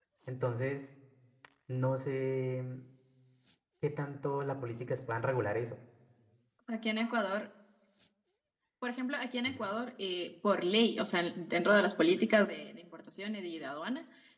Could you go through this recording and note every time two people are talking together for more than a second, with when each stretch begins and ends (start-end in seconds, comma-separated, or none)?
none